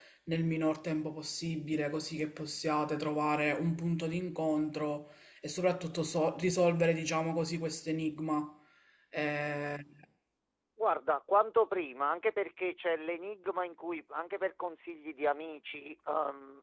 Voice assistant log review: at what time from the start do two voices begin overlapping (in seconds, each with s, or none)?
none